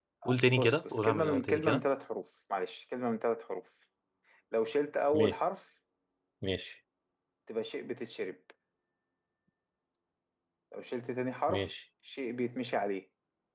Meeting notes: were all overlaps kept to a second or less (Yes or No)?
No